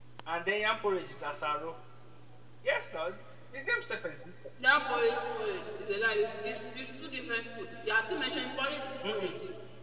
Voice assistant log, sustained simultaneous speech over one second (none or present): none